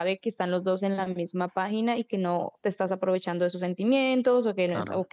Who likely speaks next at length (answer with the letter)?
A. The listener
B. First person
B